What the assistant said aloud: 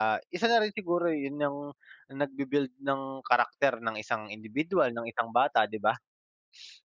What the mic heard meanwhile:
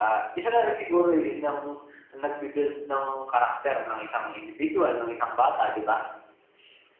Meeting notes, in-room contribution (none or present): none